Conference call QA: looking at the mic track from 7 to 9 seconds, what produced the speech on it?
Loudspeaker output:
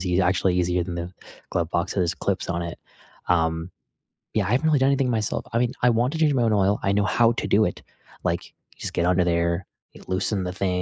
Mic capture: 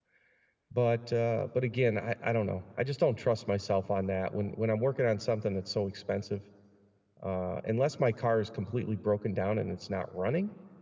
user only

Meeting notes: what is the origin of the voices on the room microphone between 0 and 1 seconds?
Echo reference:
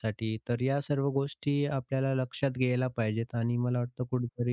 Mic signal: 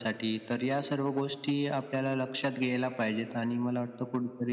echo only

